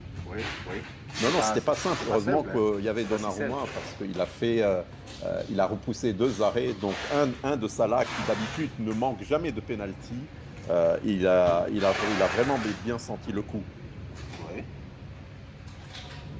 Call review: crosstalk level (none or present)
present